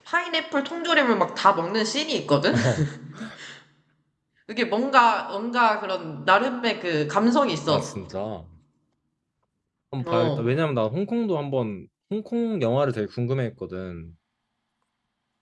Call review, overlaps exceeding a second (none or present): none